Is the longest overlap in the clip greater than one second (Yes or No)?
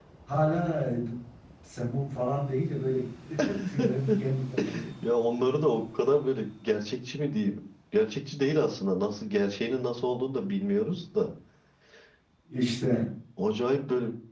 No